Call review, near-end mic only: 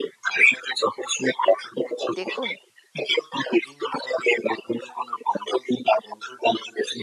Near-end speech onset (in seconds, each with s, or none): 2.2 s